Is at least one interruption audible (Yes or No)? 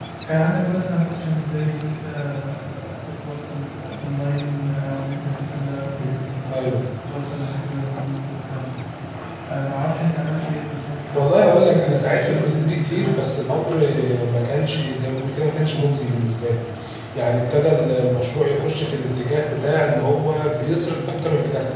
Yes